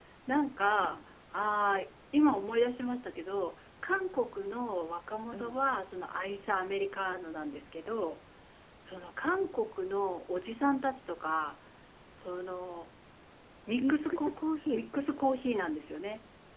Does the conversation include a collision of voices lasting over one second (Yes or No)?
No